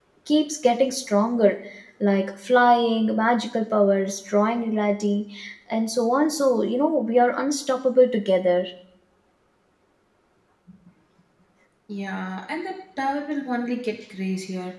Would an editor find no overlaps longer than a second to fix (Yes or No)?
Yes